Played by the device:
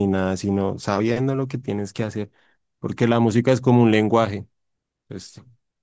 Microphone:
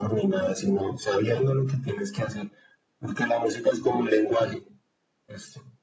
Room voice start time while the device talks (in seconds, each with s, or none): none